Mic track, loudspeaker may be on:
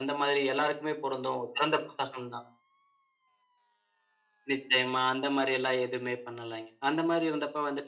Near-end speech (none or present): none